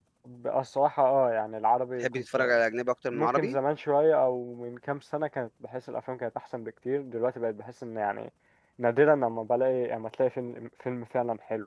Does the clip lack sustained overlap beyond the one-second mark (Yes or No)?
Yes